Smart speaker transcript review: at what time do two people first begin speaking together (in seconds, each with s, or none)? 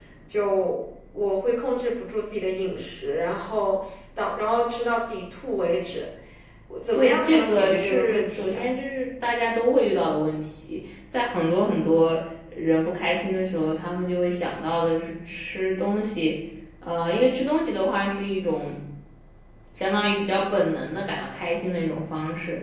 6.9 s